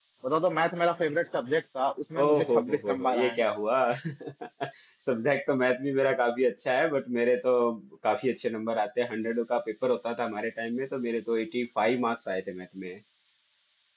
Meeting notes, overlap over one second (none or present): present